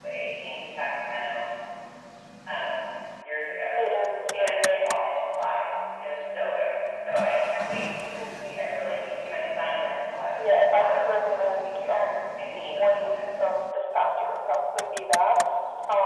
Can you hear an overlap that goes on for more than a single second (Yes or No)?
Yes